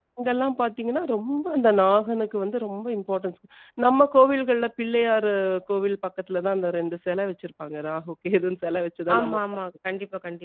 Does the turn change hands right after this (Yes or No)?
Yes